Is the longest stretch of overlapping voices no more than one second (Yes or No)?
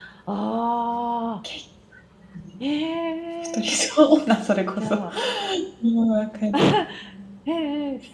Yes